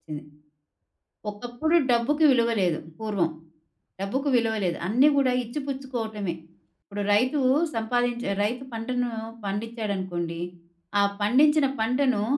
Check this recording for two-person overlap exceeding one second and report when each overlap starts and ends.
none

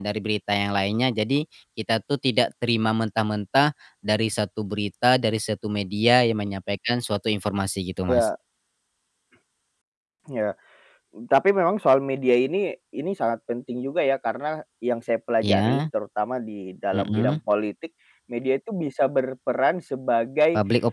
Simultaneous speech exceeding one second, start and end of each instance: none

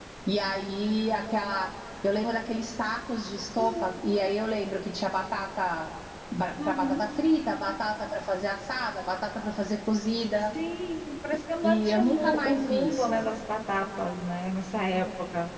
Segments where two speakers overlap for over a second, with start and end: 11.6-13.2

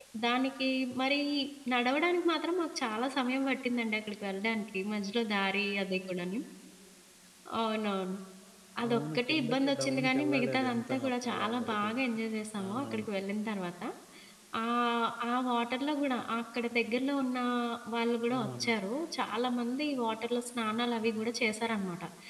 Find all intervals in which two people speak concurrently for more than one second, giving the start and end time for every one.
8.9-11.9

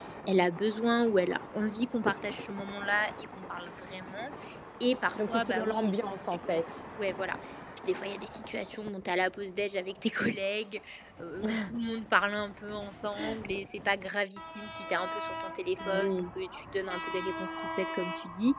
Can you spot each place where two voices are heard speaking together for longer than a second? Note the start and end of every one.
5.2-6.6

